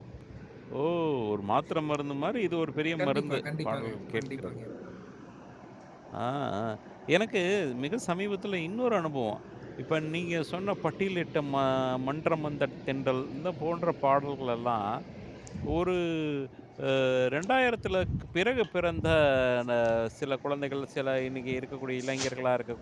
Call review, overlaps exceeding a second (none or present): present